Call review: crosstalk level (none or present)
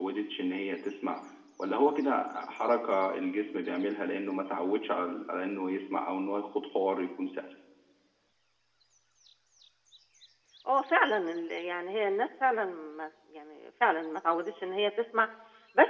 none